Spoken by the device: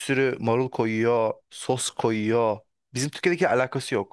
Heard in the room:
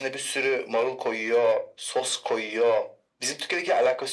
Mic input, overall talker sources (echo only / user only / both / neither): echo only